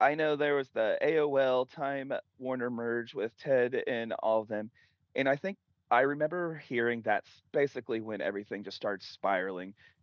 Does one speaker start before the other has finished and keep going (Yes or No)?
No